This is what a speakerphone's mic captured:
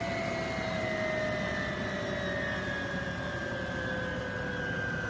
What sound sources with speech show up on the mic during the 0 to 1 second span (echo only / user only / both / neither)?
neither